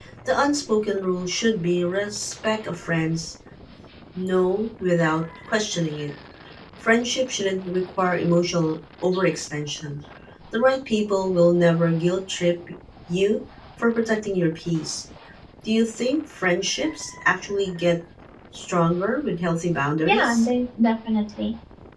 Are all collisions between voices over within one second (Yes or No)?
Yes